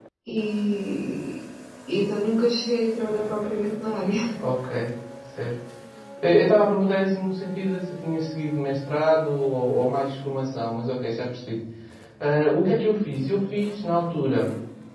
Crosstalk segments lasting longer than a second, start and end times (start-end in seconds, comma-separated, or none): none